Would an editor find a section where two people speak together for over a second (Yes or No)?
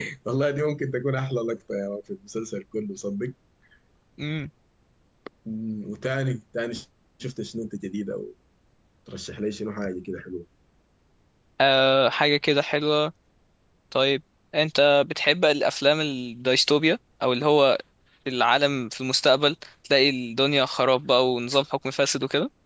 No